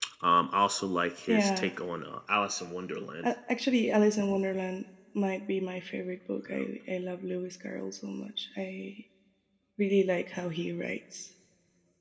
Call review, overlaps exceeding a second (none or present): none